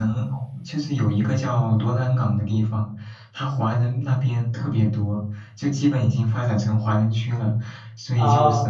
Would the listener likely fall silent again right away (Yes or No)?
Yes